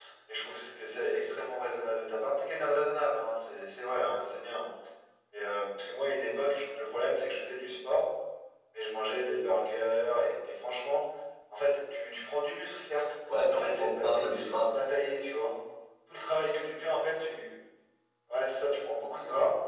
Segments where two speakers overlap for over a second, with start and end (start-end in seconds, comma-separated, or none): 13.5-14.8